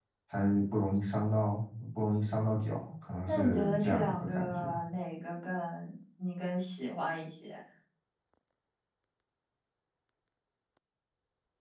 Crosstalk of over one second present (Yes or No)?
Yes